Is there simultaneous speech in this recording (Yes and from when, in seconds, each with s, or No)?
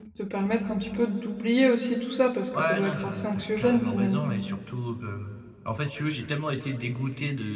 Yes, from 2.5 s